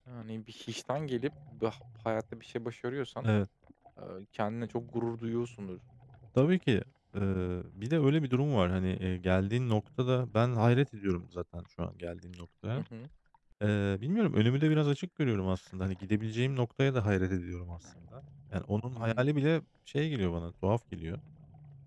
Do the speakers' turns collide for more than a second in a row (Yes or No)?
No